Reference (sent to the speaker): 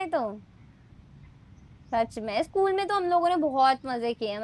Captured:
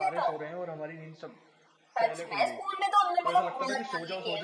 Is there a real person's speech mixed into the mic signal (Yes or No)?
Yes